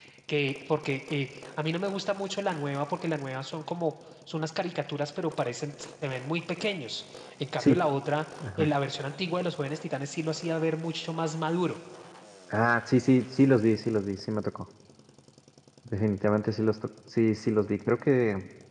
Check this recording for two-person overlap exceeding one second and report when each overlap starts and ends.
none

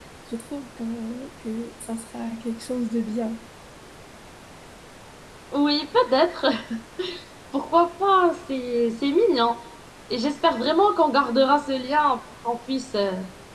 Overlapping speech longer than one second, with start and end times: none

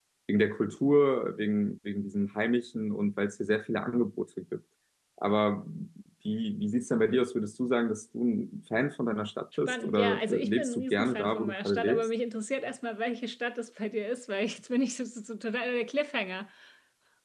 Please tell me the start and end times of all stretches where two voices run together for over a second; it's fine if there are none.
9.7-12.1

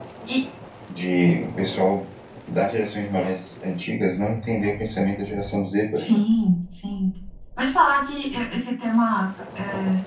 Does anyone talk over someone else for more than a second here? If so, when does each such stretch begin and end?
none

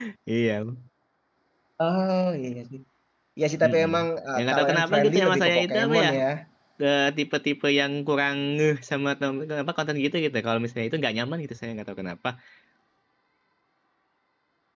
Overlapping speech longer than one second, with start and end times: 4.3-6.1

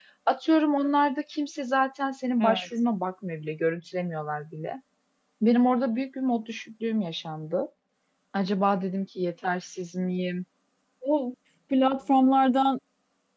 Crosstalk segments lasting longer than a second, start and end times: none

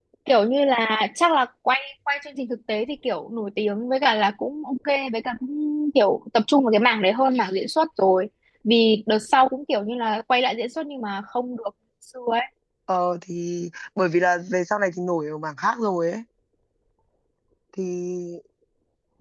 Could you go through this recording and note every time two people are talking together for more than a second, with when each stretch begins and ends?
none

